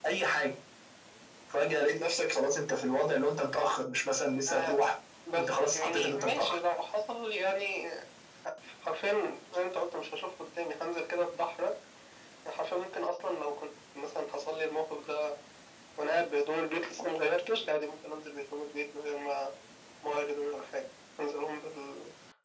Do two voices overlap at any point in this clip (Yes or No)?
Yes